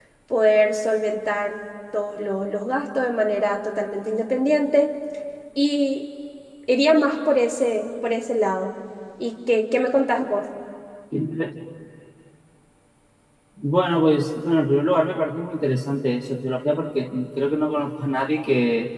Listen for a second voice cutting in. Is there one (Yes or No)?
No